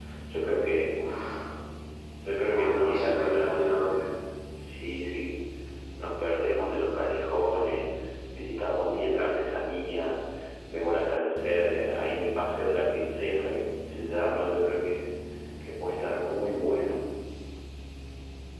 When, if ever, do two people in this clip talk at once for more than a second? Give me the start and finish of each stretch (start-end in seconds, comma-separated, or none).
2.5-3.8